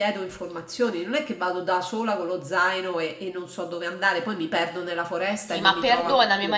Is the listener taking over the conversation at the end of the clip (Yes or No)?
Yes